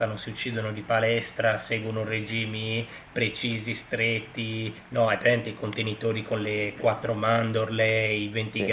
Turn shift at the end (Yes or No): No